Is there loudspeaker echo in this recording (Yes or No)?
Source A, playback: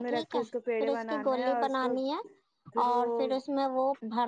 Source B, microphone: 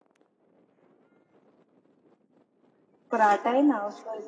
No